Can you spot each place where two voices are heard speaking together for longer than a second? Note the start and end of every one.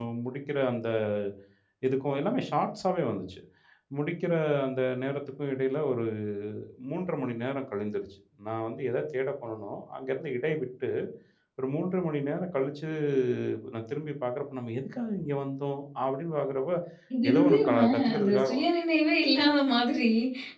17.3-18.5

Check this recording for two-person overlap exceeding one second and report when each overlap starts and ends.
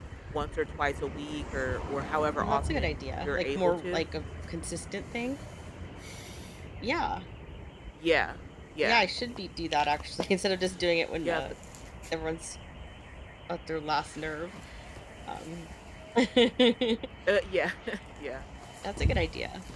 2.4-4.0

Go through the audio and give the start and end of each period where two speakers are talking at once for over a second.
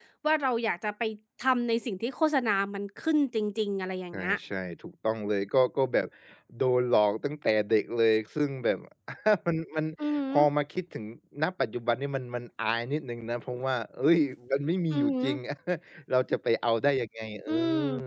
none

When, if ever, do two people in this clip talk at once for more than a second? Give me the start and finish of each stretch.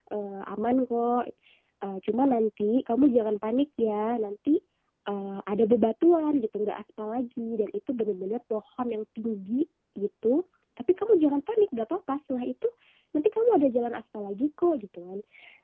none

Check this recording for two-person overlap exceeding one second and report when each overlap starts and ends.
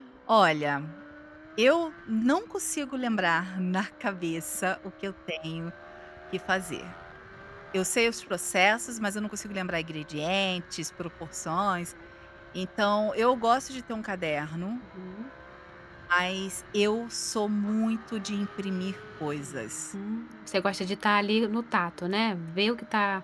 none

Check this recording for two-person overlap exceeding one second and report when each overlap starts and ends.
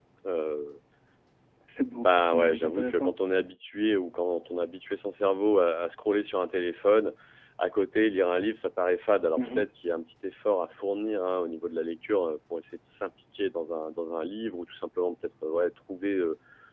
1.9-3.1

